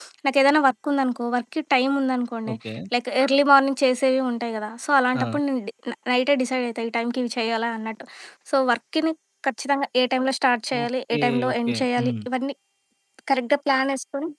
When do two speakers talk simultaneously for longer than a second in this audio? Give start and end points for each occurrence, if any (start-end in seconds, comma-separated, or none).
10.8-12.1